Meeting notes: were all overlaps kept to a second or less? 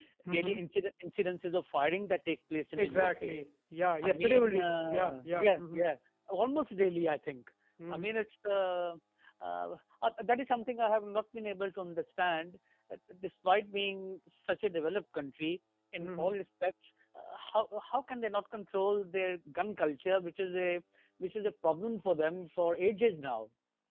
No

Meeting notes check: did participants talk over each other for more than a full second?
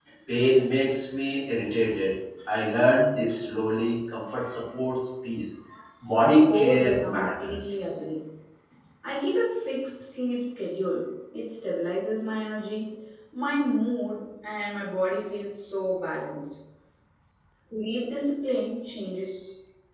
Yes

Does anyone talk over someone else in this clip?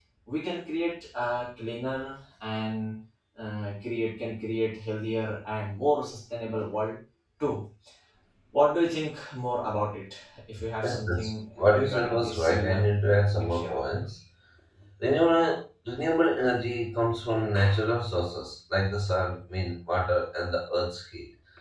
Yes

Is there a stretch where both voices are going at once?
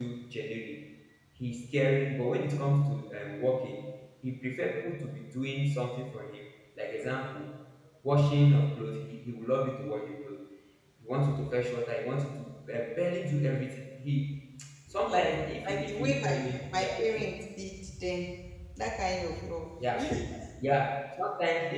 Yes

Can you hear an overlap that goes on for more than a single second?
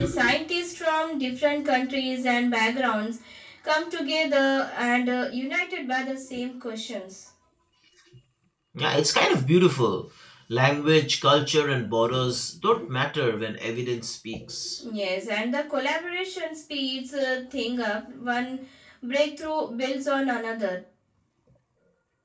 No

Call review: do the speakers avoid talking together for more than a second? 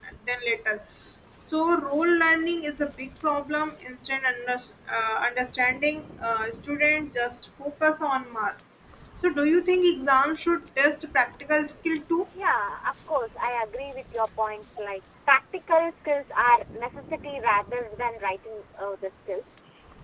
Yes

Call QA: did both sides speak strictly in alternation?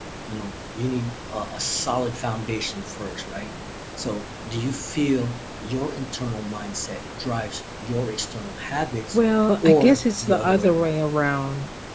No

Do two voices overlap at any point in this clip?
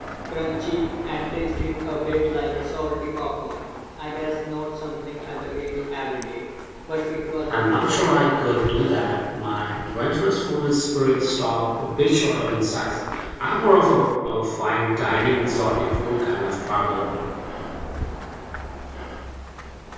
Yes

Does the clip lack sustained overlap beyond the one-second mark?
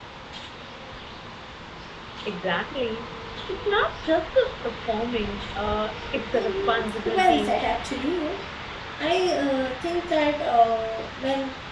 No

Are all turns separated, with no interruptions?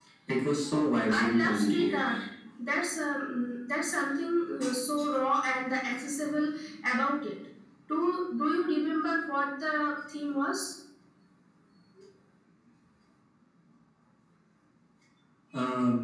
No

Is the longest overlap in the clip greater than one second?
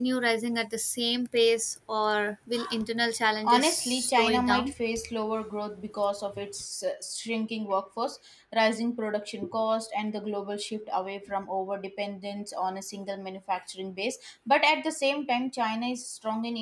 Yes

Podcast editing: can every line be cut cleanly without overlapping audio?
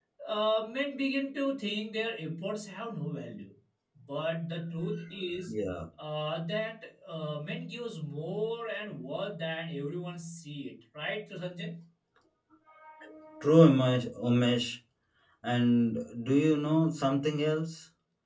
Yes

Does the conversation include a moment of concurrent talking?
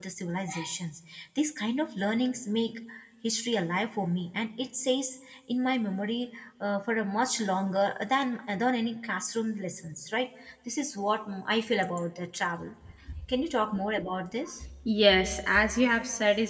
No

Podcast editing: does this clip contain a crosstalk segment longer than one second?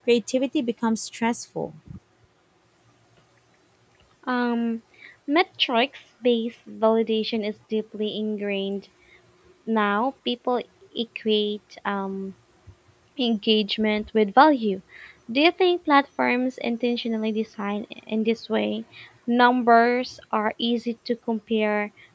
No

